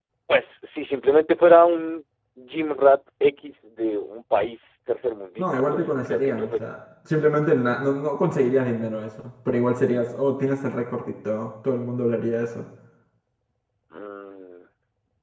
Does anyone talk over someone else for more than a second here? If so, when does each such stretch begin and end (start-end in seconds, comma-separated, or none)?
5.4-6.6